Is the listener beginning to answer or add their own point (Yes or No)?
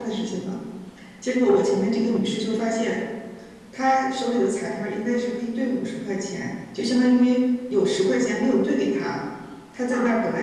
No